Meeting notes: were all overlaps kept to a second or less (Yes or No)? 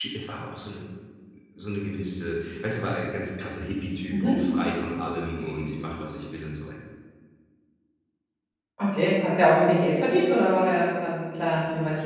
Yes